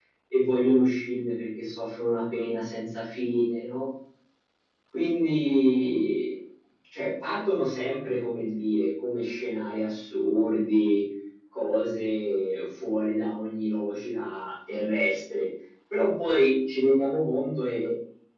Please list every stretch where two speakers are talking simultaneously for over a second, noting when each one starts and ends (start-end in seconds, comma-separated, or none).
none